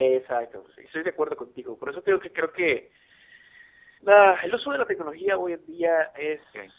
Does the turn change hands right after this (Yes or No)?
No